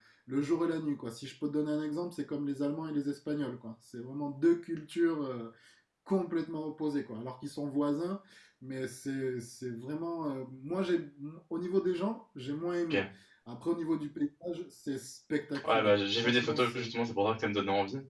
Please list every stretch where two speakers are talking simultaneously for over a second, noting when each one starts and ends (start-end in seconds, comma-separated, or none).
15.6-16.9